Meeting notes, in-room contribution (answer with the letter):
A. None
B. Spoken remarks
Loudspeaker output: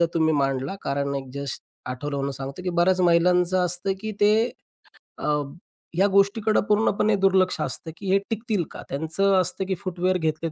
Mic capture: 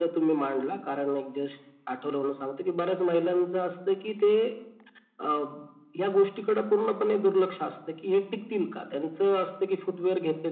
A